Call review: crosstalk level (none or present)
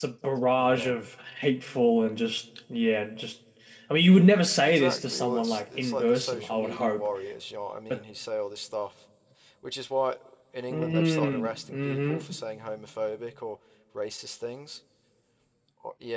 present